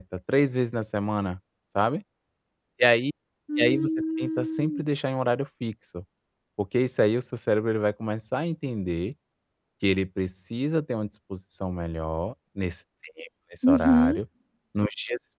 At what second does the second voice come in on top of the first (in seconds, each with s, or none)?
3.6 s